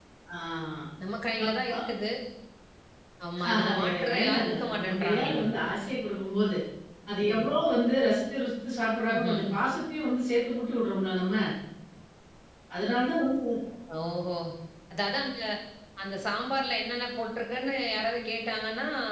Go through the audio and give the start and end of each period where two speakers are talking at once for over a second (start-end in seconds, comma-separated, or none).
3.5-5.4